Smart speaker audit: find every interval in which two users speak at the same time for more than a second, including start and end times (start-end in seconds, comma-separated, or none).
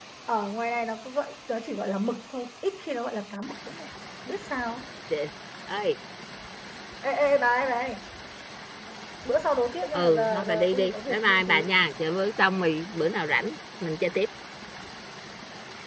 9.9-11.7